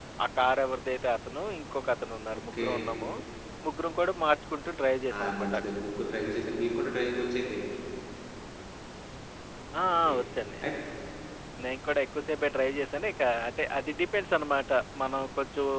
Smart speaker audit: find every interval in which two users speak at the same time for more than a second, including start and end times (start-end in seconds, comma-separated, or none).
none